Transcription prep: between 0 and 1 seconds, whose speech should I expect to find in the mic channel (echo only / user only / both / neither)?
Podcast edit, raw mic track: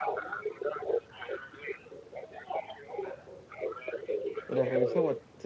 echo only